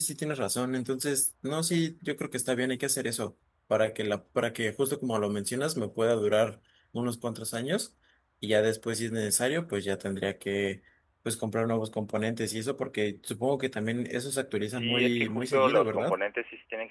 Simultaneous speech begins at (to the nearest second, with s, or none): 15 s